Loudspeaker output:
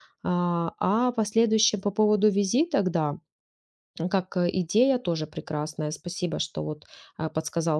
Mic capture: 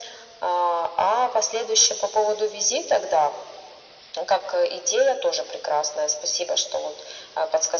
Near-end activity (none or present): none